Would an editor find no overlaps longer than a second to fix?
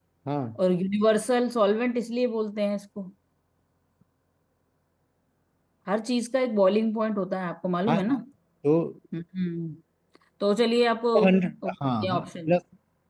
Yes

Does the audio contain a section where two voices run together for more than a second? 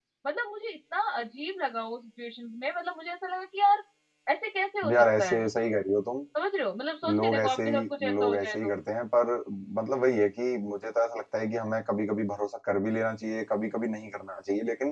Yes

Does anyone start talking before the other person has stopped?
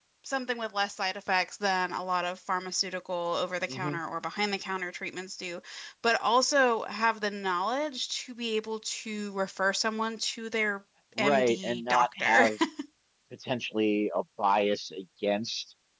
Yes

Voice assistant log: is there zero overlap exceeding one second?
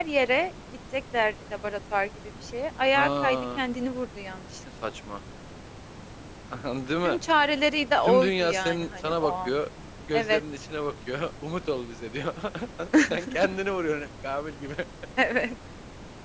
No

